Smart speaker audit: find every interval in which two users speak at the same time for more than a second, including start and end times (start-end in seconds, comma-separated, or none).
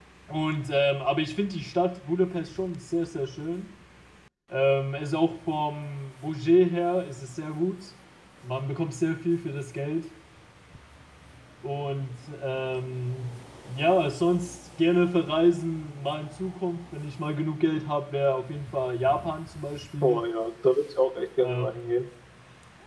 none